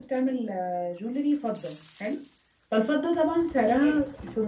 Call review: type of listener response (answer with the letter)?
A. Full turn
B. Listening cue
B